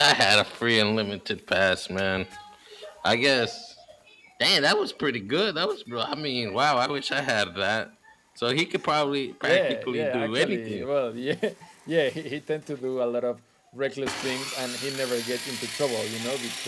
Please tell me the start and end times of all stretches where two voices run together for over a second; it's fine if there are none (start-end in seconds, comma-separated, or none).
9.4-10.9